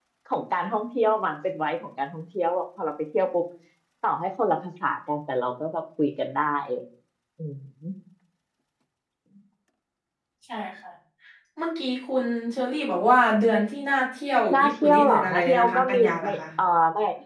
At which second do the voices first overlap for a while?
14.5 s

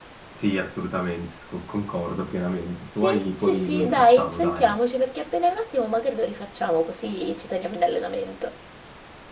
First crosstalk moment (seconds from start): 2.9 s

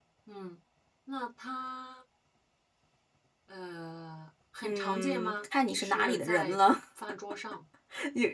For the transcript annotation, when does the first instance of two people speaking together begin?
4.6 s

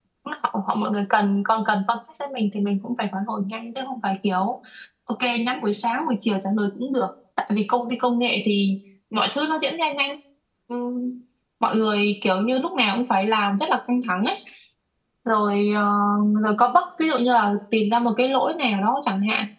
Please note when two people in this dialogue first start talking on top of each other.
none

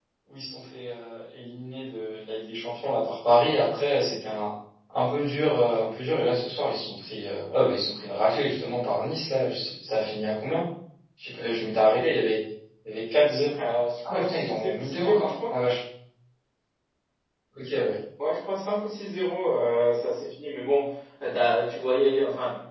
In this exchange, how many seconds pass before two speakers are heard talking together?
14.1 s

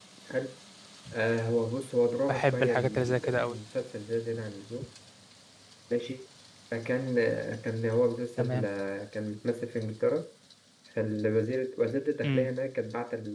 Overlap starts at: 2.3 s

